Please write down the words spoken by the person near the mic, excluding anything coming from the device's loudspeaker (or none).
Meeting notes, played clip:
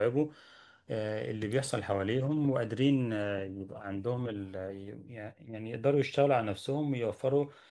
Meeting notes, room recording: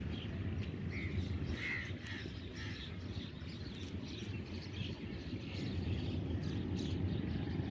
none